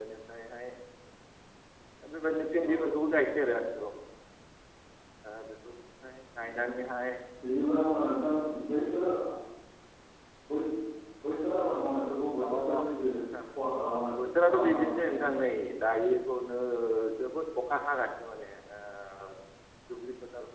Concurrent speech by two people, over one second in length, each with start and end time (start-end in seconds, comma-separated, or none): 14.2-15.4